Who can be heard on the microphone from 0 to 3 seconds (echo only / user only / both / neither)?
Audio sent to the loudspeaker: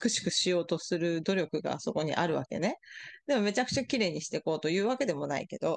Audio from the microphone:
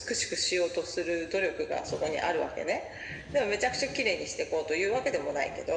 echo only